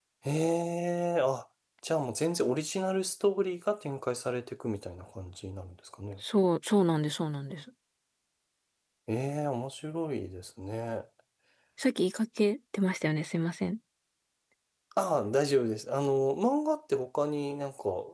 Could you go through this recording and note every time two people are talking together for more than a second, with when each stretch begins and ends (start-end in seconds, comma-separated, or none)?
none